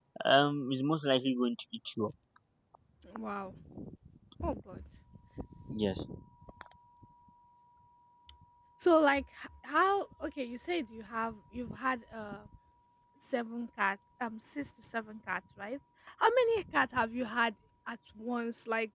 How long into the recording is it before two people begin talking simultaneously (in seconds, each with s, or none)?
none